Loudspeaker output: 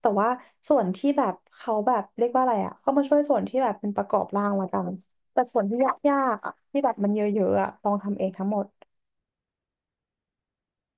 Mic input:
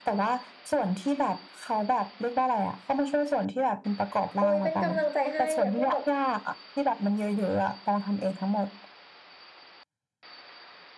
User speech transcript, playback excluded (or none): โอ้ยเป็นกำลังใจให้อย่าเพิ่งแบบ